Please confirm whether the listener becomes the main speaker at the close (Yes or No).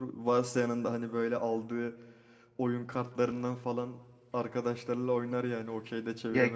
Yes